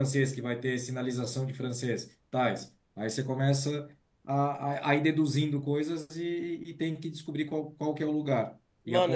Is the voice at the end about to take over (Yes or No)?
Yes